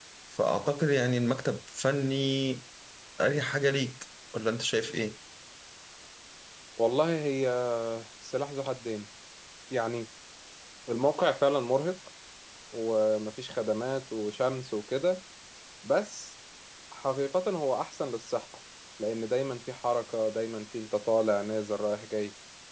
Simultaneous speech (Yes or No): No